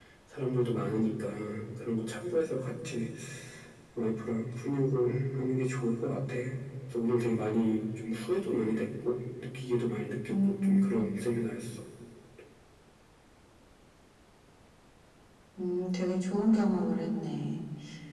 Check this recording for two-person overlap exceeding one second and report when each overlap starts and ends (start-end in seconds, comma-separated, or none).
none